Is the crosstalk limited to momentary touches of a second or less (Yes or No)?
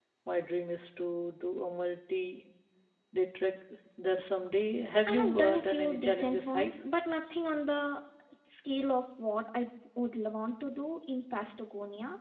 No